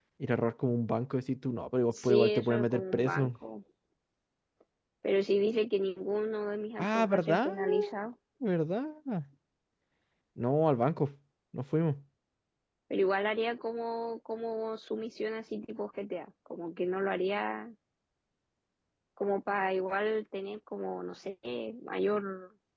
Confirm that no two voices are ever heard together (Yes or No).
No